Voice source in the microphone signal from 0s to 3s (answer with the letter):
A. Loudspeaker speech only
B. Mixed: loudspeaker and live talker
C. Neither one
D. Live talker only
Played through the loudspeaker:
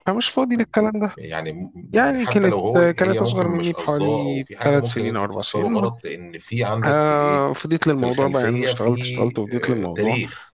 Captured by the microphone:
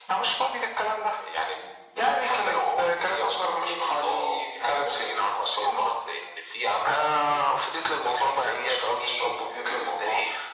A